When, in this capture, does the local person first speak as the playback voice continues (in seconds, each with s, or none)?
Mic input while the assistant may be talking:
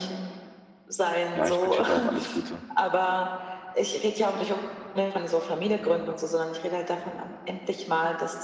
1.3 s